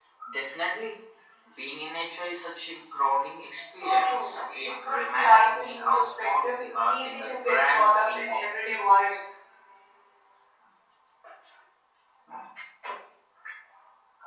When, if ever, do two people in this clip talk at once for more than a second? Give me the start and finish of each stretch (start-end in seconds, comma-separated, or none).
3.7-9.2